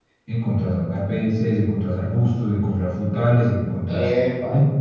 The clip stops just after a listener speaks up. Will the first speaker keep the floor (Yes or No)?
Yes